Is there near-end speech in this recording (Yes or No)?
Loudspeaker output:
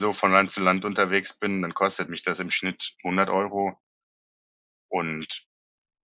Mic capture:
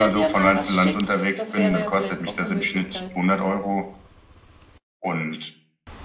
Yes